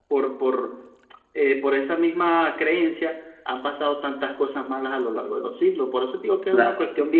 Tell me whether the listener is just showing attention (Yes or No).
No